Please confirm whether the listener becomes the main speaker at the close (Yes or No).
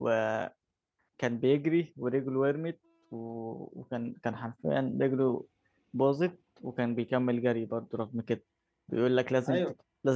No